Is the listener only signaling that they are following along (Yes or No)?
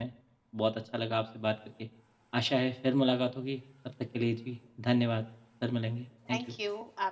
No